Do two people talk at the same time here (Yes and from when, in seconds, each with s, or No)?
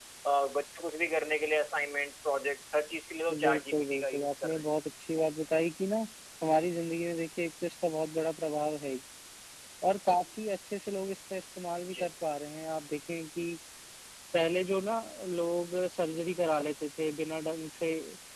Yes, from 3.3 s